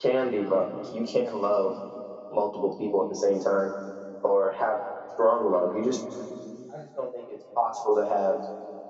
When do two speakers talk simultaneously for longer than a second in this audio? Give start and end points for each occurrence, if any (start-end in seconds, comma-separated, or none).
none